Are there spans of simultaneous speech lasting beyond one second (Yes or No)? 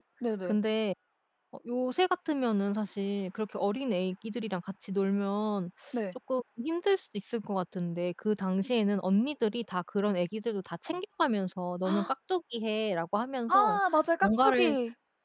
No